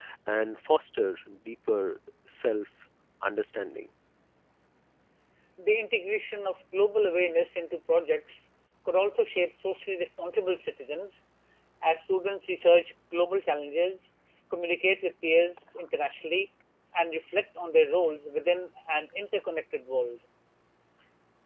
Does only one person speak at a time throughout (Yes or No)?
Yes